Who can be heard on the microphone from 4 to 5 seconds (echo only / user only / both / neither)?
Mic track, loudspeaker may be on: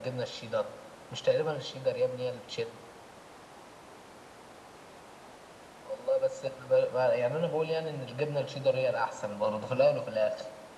neither